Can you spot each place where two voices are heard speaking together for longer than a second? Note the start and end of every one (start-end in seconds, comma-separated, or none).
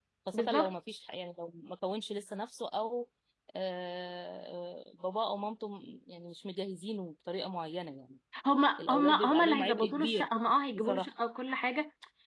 8.8-10.3